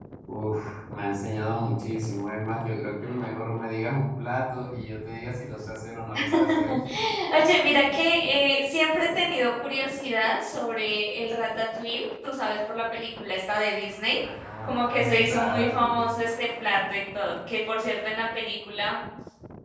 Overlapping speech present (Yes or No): Yes